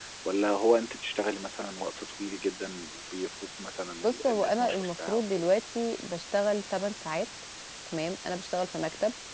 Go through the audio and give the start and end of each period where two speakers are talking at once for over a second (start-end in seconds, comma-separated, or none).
4.0-5.5